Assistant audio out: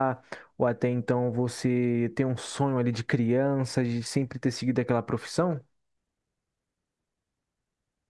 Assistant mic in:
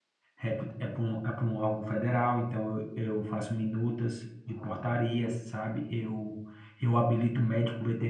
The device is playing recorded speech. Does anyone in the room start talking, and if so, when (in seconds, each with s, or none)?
0.4 s